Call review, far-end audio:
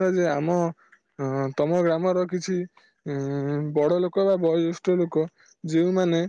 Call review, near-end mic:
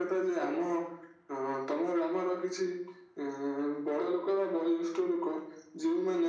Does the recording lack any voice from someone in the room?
Yes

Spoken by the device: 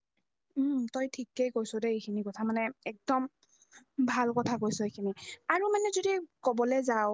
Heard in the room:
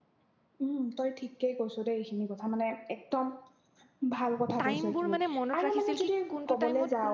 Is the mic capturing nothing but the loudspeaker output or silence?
No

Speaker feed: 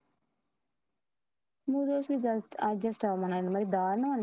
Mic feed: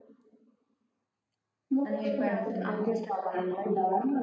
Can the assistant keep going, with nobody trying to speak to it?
No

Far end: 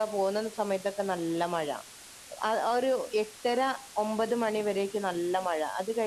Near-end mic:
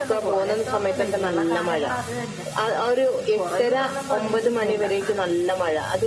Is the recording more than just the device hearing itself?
Yes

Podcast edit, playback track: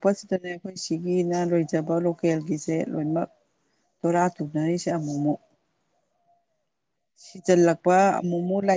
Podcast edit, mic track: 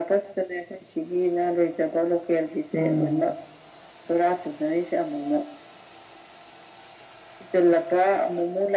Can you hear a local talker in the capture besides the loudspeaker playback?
Yes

